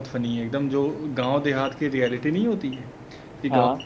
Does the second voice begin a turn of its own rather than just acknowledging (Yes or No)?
No